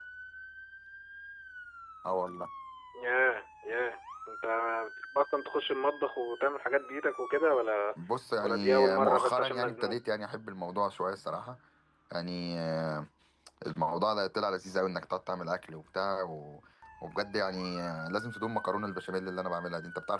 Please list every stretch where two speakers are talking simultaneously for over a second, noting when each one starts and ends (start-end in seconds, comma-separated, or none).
8.4-10.0